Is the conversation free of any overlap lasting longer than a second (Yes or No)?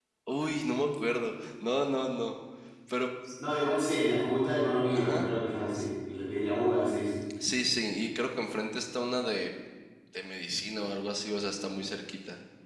Yes